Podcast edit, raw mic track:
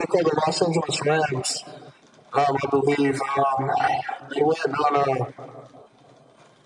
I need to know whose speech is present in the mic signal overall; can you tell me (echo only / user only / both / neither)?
echo only